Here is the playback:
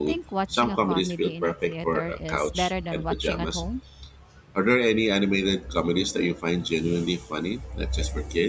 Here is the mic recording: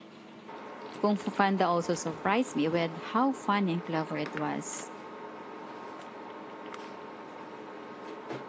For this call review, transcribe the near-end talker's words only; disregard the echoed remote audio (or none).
Kung Fu Panda also surprised me with how funny and clever it was.